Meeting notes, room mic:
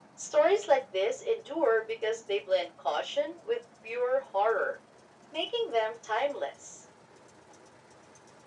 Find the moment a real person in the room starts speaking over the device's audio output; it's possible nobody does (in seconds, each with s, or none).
none